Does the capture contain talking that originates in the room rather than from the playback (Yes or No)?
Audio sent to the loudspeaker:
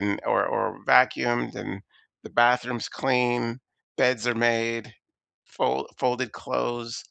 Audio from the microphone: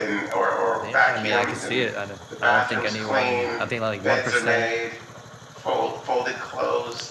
Yes